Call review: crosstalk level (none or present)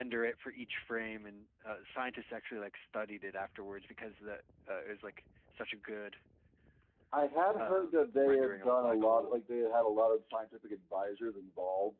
present